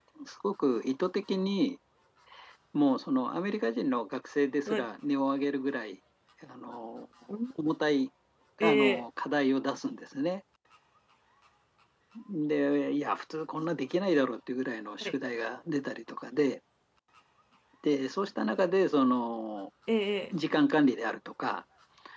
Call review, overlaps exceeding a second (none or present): none